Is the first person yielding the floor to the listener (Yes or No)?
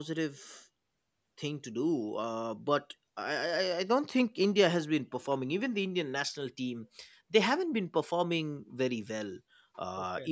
No